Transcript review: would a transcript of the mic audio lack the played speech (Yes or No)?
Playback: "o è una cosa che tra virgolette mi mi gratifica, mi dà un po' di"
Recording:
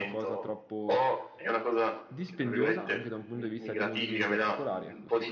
No